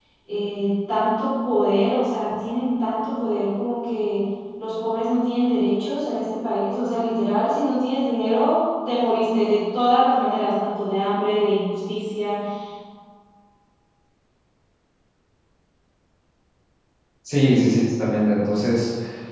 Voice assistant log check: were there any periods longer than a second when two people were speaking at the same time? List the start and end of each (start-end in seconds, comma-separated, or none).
none